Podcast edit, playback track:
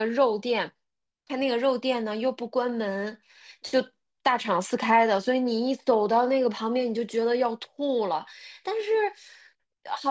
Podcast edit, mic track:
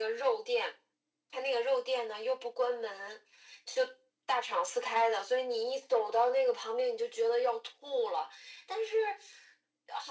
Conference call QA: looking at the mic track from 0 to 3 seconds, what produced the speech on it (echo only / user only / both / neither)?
echo only